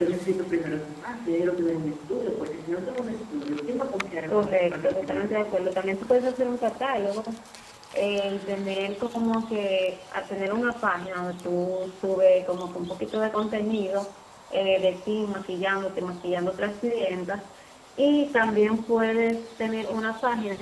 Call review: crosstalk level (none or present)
present